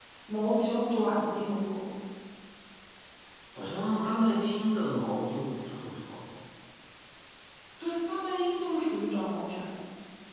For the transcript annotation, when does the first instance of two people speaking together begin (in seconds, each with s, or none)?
none